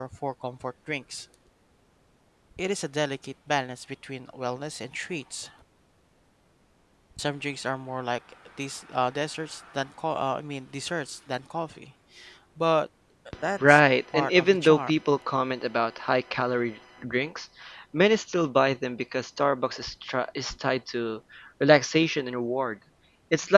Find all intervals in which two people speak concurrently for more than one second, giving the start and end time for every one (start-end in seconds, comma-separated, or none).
13.7-15.0